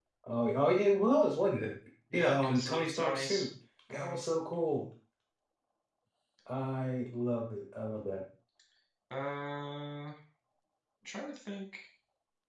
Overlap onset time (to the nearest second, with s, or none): 2 s